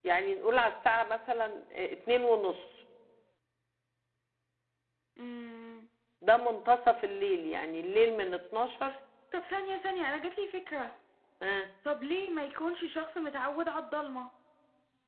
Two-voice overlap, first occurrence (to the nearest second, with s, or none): none